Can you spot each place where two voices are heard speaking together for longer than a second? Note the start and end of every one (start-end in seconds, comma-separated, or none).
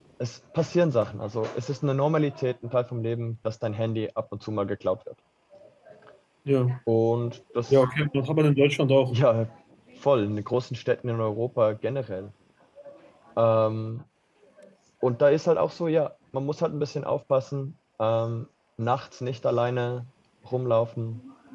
none